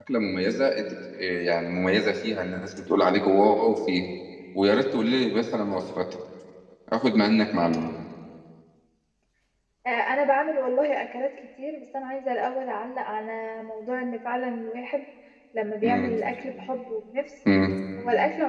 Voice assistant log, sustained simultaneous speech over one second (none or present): none